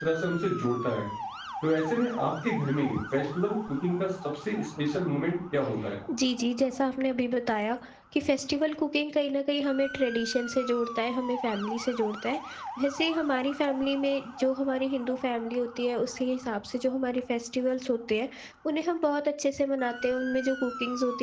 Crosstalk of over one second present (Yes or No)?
No